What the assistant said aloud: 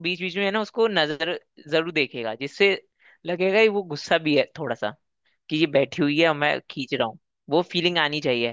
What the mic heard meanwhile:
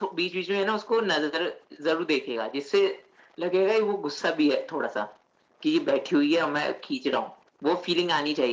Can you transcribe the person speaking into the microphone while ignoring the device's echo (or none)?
none